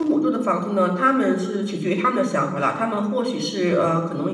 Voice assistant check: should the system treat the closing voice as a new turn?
No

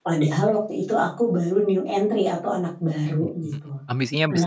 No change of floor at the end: No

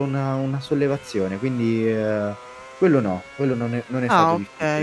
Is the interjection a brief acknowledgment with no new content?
No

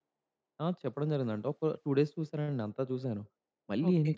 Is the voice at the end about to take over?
No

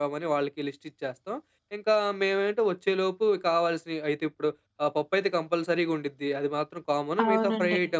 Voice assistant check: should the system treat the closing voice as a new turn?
No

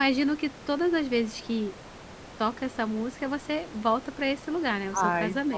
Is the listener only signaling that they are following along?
No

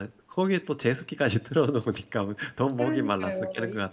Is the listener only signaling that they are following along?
No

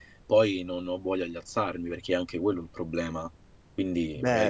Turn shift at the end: Yes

